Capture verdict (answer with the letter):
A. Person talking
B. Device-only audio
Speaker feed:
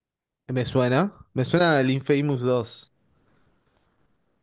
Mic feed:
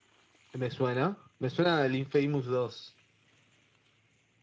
B